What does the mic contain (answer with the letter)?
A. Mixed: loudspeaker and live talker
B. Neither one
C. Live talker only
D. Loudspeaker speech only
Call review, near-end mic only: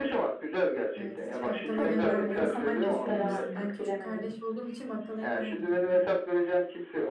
A